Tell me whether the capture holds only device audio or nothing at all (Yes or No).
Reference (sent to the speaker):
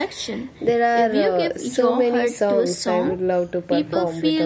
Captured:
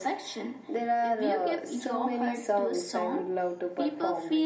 Yes